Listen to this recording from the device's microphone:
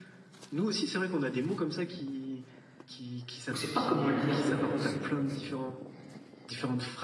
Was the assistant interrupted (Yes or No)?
Yes